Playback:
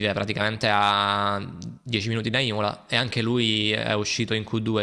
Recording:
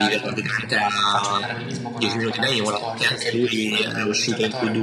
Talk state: both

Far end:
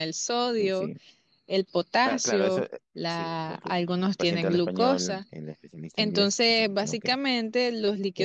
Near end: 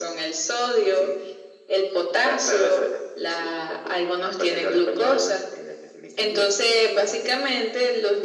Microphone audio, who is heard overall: echo only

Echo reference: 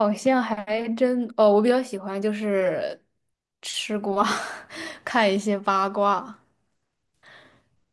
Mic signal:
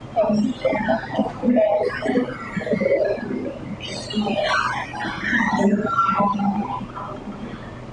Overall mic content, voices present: echo only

